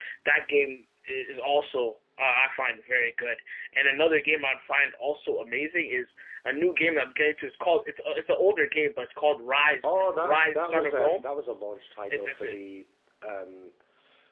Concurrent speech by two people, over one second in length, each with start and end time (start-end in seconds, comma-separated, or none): 9.8-11.2